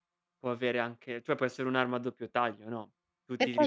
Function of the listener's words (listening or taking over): listening